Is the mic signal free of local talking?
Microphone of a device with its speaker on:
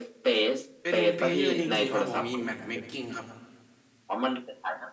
No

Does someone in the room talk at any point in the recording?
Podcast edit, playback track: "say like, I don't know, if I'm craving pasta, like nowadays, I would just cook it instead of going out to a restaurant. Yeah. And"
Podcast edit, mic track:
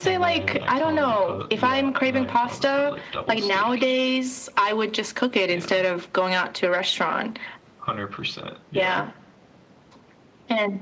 Yes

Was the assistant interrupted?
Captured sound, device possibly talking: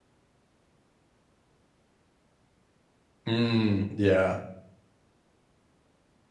Yes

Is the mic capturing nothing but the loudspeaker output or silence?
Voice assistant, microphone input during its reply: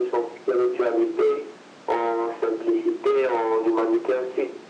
Yes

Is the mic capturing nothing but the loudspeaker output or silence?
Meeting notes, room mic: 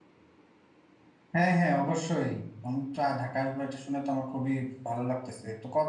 No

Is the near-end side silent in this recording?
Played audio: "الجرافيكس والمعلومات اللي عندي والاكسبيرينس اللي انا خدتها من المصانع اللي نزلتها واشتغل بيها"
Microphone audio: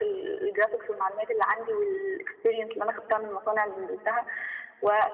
Yes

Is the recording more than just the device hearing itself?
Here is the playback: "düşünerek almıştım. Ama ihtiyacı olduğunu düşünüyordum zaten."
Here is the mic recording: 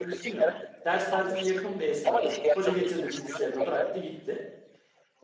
Yes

